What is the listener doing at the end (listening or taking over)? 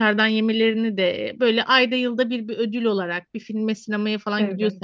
listening